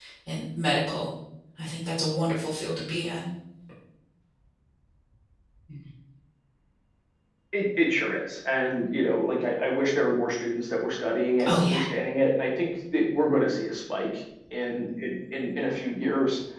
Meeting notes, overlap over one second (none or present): none